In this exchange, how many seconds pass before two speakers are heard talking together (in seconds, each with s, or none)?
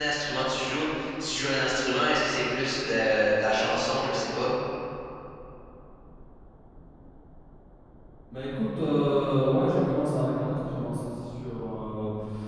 none